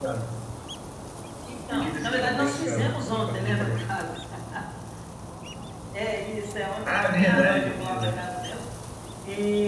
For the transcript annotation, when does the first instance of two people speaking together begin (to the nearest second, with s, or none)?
2 s